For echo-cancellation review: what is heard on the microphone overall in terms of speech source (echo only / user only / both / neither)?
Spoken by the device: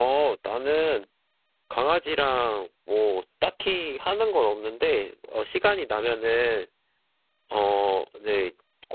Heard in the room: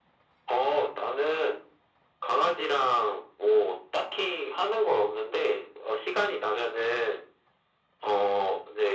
echo only